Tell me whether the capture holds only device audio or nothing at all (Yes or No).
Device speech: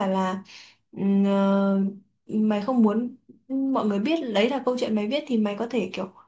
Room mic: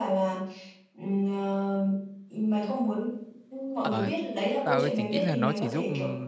No